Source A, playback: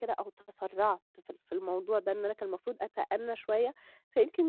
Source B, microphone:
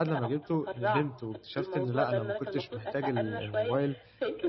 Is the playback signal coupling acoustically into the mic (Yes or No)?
Yes